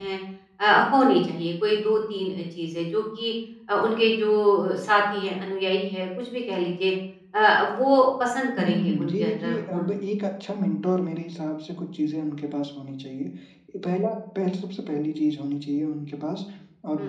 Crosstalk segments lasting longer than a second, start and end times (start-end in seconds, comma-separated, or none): 8.6-9.9